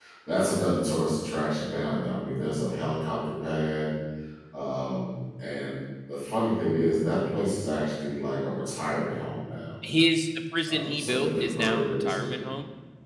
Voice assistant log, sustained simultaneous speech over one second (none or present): present